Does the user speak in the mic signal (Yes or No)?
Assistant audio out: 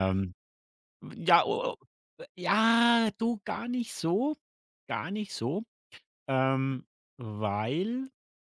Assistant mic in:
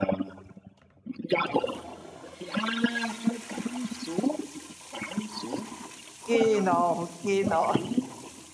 Yes